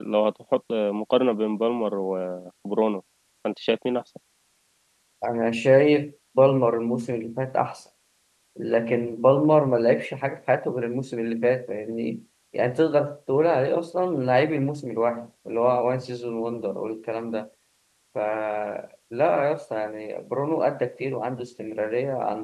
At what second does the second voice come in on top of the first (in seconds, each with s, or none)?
none